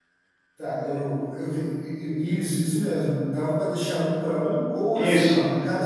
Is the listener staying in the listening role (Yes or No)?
Yes